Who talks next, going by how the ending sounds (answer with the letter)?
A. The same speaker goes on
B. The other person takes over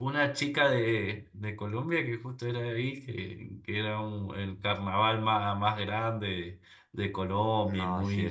B